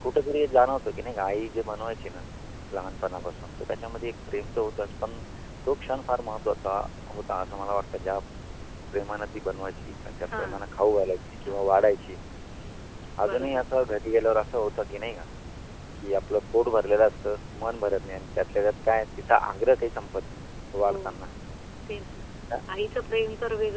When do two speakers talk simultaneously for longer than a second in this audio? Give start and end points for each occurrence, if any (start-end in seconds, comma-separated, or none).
none